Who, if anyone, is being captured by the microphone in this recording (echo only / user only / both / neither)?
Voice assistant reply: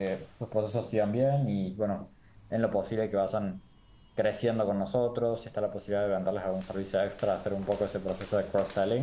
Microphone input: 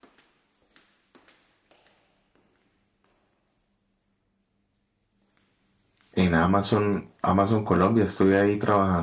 user only